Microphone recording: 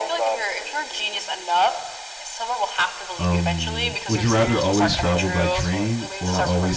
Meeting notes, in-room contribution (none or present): present